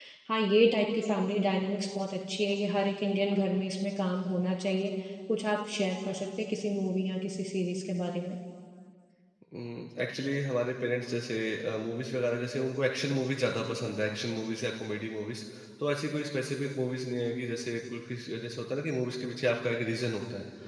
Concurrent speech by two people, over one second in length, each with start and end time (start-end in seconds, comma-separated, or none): none